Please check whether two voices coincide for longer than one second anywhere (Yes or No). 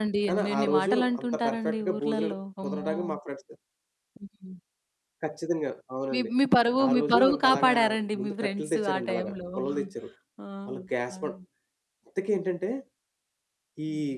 Yes